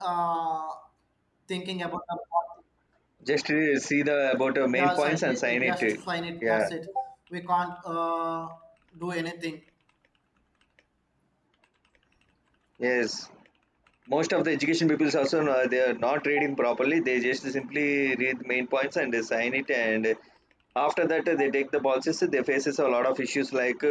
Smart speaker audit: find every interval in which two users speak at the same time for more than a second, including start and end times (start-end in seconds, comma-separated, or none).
4.7-6.0